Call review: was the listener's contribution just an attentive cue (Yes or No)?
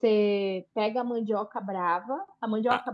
Yes